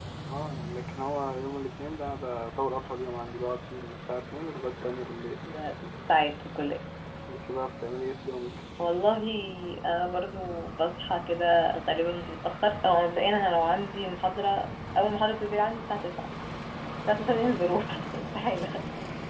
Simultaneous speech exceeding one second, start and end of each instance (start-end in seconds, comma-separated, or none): none